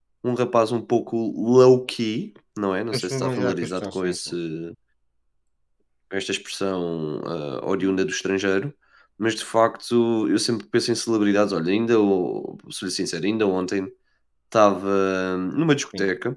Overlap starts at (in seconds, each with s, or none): 2.9 s